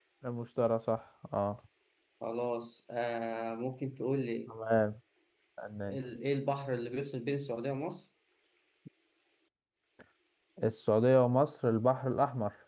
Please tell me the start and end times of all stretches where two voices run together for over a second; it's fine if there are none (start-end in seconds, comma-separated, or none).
none